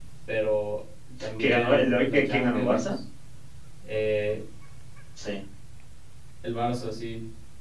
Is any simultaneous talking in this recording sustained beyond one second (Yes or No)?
Yes